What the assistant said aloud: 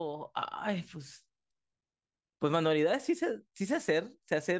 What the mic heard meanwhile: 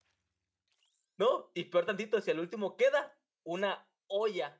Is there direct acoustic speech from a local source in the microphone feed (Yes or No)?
Yes